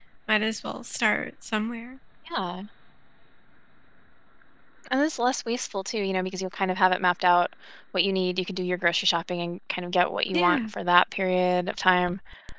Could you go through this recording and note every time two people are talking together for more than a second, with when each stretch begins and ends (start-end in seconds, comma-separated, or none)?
none